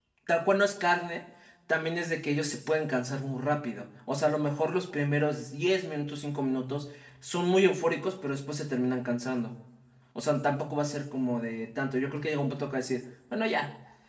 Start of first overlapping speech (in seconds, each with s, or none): none